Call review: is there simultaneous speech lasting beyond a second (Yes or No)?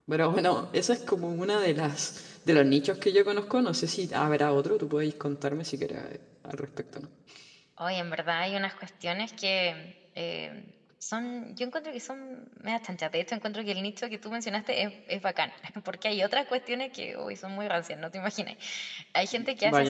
No